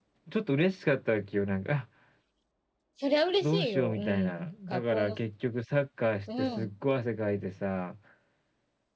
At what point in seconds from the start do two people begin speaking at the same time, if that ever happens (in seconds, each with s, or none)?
3.4 s